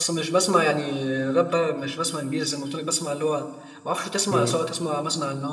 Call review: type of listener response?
listening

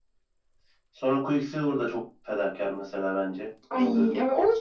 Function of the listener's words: taking over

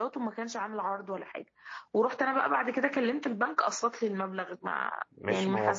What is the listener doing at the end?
taking over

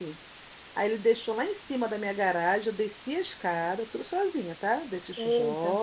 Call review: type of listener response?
listening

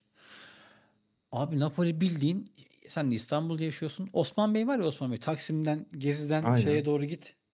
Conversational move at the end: listening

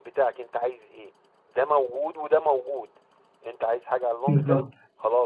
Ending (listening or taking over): listening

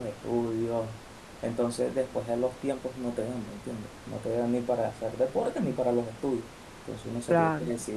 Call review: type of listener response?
listening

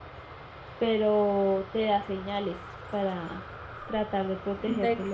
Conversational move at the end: taking over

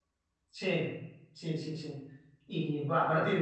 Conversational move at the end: listening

